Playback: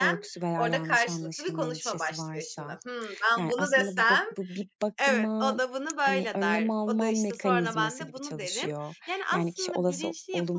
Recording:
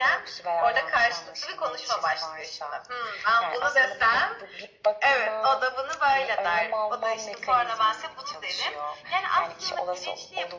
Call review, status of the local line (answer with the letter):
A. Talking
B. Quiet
B